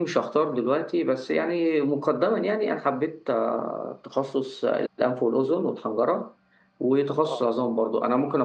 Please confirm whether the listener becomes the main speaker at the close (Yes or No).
No